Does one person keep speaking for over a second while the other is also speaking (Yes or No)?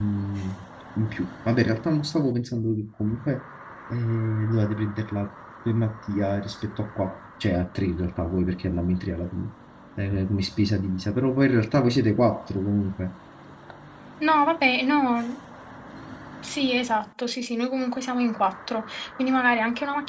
No